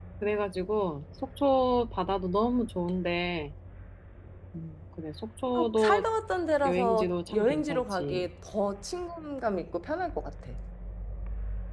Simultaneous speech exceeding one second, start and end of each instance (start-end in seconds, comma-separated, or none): 6.6-8.3